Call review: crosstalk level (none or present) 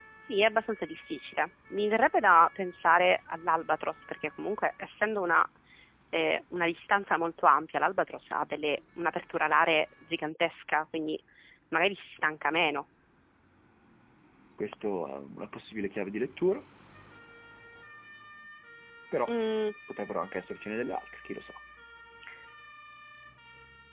none